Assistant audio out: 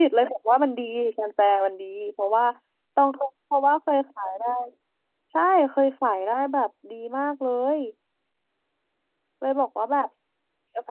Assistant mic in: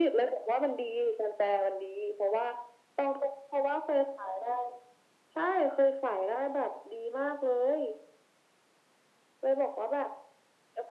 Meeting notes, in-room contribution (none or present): none